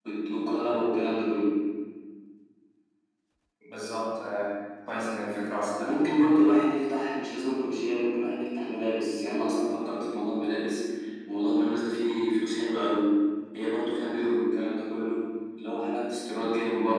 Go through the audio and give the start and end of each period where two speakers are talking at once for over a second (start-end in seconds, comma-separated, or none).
none